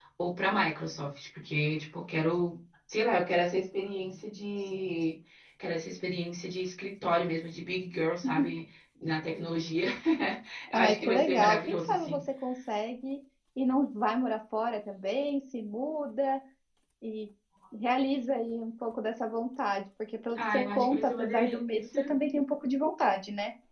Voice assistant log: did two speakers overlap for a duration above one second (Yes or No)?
Yes